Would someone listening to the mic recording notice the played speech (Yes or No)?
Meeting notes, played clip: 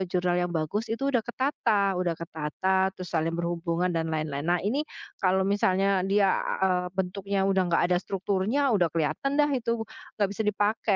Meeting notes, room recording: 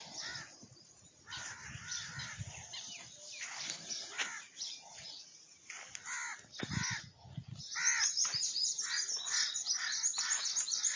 No